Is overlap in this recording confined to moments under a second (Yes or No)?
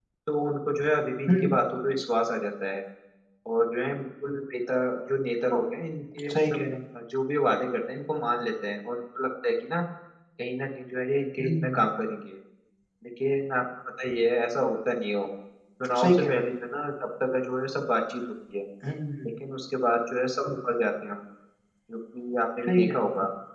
Yes